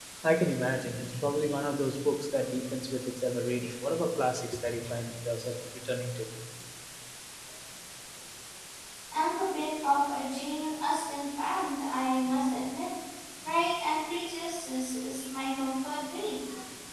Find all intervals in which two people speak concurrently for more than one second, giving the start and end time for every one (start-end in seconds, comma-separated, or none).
none